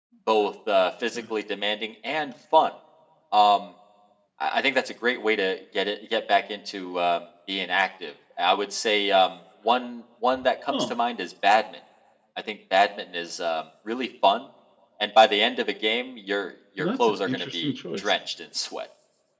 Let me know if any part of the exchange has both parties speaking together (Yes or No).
Yes